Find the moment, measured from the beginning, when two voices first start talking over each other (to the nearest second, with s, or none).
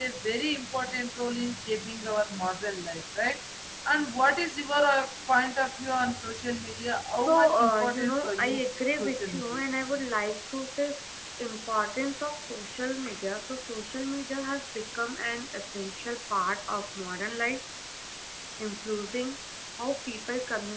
7 s